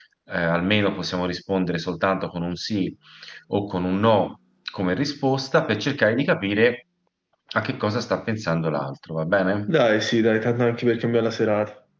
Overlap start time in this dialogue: none

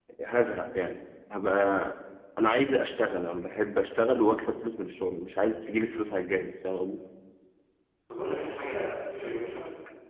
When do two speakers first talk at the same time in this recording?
none

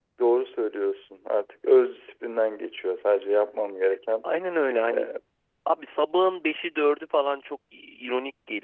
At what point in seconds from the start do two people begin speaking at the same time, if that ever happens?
none

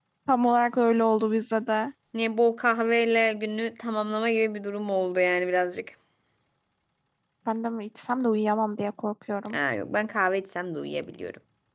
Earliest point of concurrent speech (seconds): none

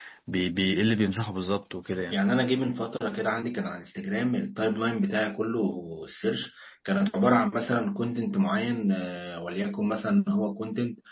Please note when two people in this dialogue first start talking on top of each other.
none

